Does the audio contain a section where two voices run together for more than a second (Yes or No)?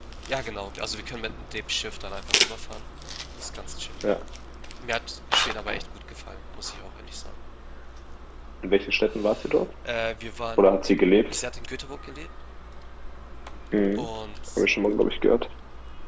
No